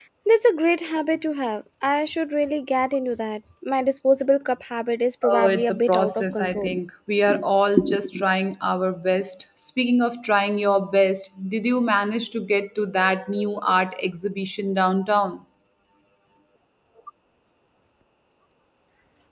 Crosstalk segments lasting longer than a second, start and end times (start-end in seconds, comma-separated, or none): 5.3-6.7